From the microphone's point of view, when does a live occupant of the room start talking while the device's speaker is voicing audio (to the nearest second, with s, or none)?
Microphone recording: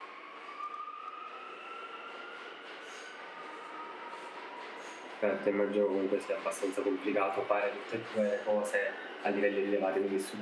5 s